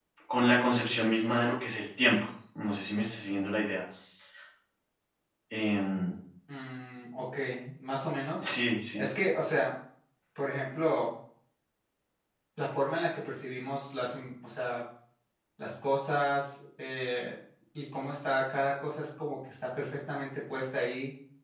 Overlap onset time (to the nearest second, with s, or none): none